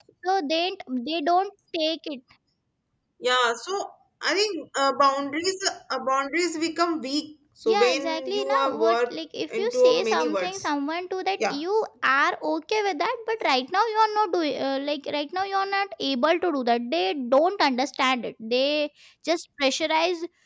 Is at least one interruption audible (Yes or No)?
Yes